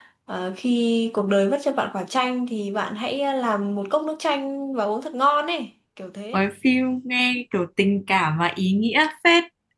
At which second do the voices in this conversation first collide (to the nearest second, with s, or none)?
none